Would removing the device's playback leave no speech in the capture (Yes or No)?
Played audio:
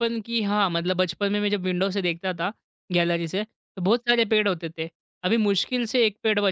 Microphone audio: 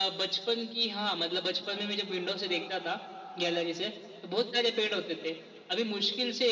Yes